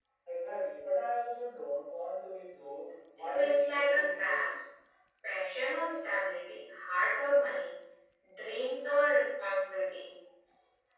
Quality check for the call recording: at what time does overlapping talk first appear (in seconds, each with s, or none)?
3.2 s